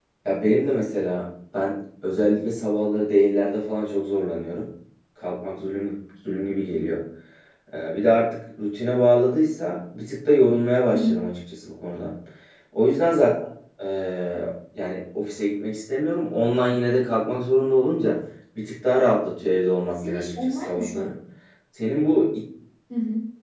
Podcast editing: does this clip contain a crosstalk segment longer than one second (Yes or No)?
Yes